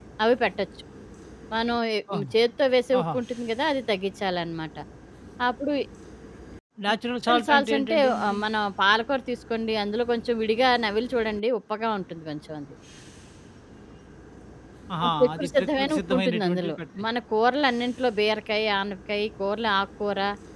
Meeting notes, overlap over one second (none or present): present